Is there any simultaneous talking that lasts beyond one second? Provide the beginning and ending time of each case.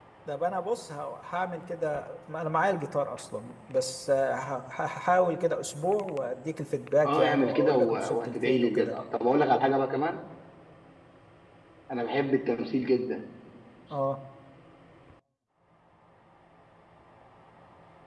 7.0-9.0

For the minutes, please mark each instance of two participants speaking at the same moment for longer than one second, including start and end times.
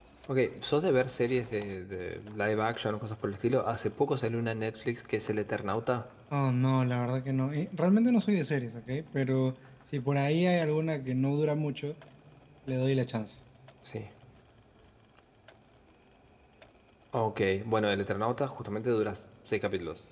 none

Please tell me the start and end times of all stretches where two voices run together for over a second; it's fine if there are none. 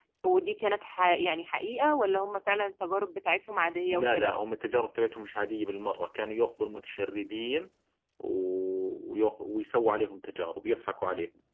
none

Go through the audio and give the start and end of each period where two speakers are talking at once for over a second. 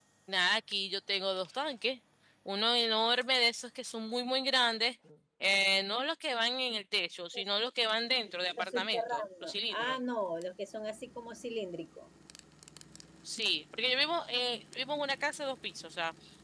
8.6-10.0

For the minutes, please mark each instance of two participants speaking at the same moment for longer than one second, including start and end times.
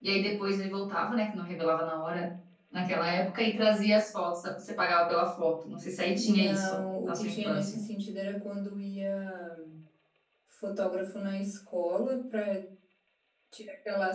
6.1-7.8

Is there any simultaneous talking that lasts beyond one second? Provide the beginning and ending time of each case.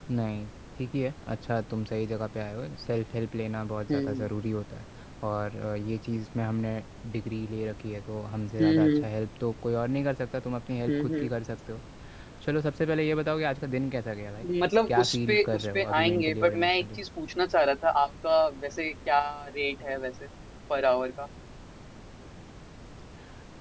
14.9-17.0

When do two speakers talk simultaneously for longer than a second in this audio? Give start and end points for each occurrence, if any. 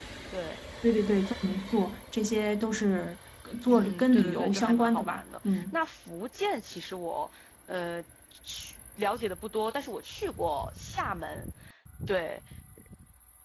3.7-5.8

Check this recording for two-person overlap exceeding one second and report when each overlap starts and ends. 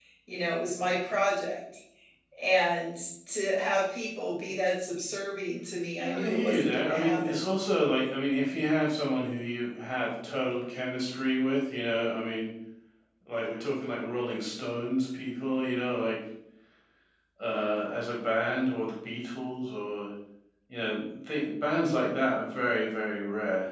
6.0-7.4

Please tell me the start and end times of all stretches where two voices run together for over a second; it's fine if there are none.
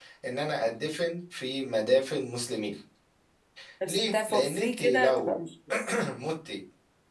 3.9-5.4

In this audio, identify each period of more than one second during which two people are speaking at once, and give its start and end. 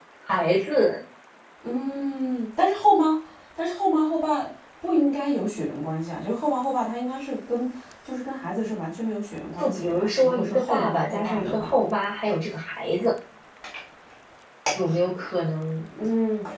9.6-11.7

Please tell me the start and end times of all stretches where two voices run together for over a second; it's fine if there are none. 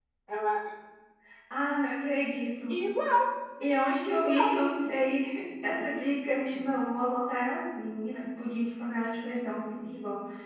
none

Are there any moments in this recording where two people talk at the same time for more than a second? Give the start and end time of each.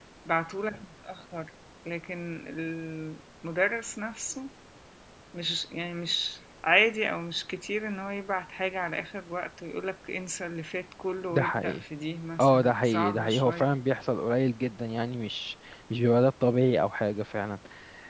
12.4-13.6

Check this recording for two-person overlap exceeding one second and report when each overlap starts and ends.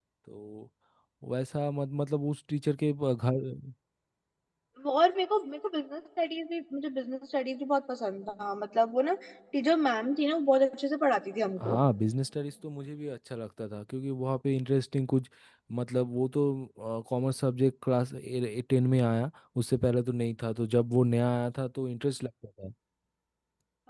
none

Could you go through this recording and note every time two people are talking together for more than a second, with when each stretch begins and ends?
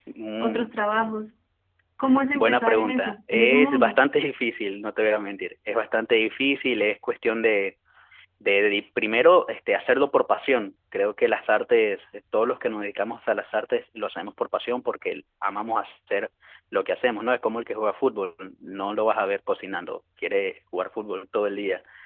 2.3-4.0

